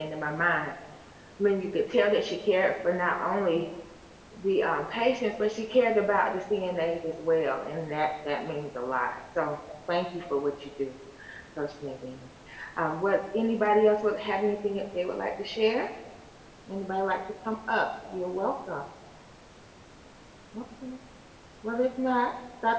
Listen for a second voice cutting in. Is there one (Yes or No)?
No